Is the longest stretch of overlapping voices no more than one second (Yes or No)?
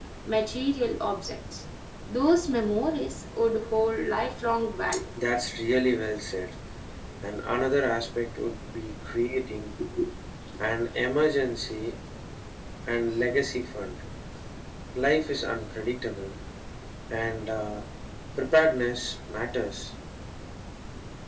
Yes